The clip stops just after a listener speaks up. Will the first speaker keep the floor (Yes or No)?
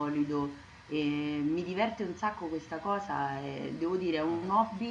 Yes